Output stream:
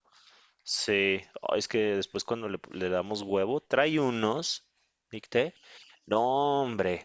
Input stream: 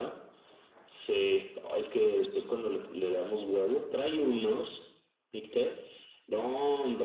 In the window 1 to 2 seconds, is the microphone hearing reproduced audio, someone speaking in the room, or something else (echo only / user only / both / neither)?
echo only